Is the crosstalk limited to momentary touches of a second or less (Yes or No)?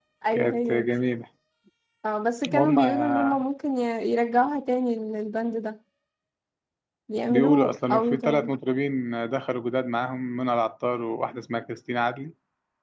No